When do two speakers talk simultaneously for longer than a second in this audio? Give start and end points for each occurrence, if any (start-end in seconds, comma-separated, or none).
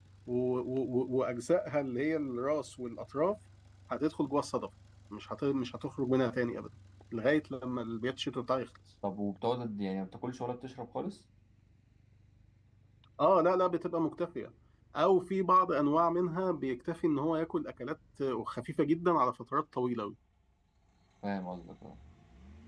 none